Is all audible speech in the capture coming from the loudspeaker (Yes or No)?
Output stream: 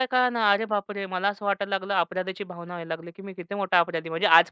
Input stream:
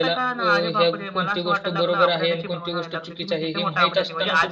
No